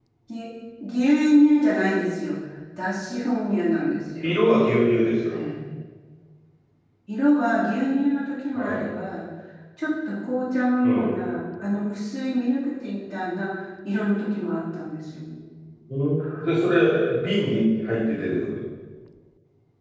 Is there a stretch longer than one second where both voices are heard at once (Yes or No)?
No